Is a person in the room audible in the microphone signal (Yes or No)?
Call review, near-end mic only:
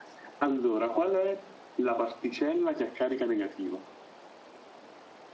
No